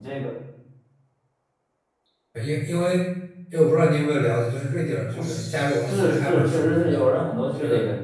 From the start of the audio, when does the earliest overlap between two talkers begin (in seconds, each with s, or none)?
5.1 s